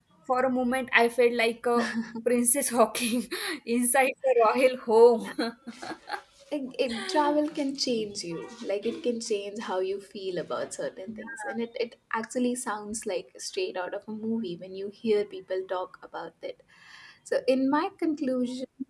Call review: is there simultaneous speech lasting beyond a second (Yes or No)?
No